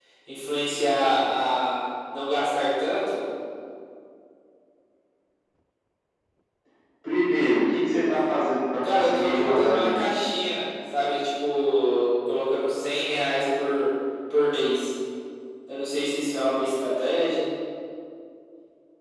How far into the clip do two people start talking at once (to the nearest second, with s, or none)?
9 s